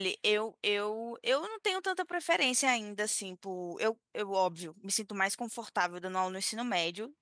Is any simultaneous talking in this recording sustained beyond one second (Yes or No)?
No